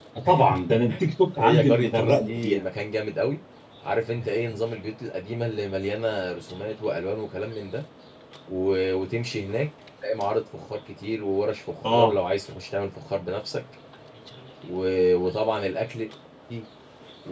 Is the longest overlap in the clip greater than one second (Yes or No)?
Yes